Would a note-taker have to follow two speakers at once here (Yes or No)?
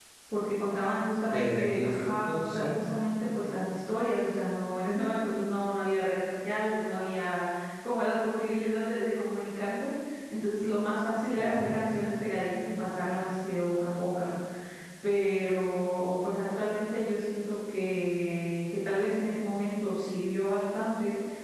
Yes